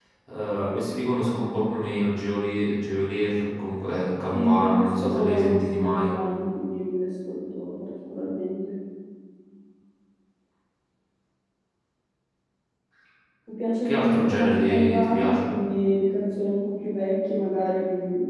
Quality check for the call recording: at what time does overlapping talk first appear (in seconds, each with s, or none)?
4.3 s